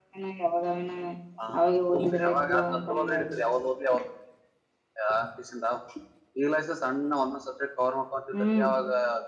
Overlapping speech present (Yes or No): Yes